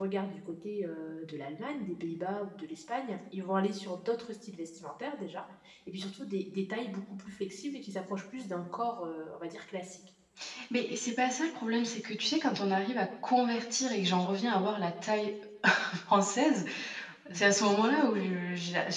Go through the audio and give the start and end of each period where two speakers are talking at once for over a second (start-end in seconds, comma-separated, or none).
none